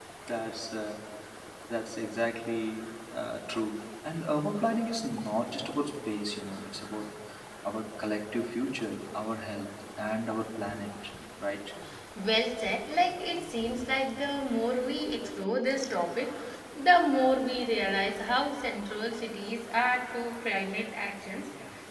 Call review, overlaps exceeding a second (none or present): none